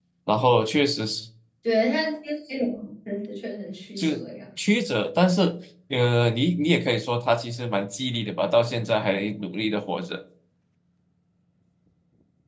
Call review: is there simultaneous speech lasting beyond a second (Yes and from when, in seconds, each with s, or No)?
No